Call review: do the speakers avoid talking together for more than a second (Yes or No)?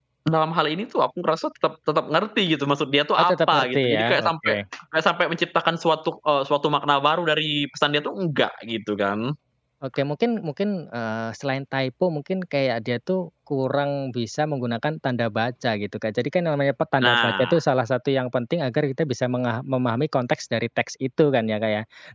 No